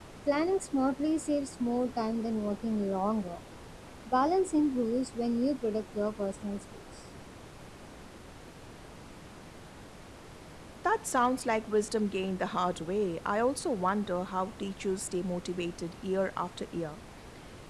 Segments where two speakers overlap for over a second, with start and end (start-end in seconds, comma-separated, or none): none